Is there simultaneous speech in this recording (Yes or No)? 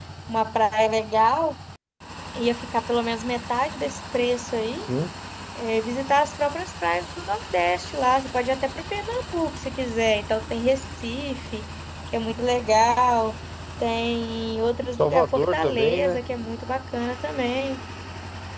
Yes